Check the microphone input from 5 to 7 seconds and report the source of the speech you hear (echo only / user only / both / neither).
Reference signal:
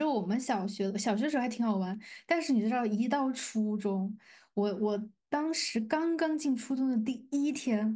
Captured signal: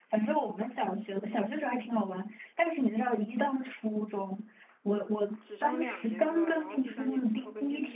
both